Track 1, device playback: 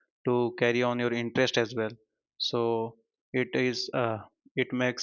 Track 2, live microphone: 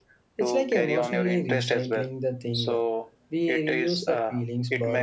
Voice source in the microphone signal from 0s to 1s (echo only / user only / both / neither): both